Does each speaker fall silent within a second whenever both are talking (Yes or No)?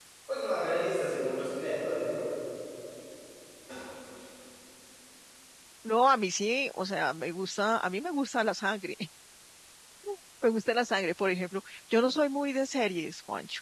Yes